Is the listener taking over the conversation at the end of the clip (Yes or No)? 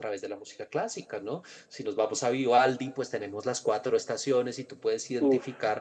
No